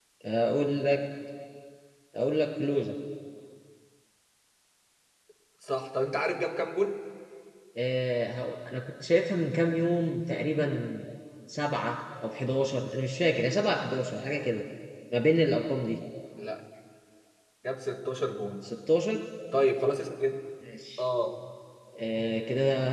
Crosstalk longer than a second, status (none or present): none